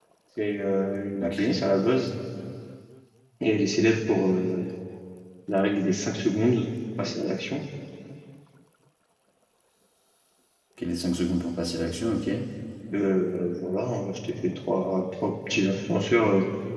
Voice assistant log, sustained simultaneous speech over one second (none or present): none